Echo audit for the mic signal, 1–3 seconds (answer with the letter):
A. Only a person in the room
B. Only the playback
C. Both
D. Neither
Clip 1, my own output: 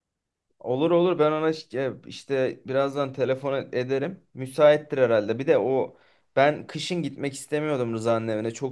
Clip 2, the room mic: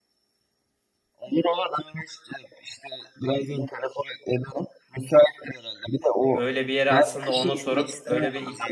B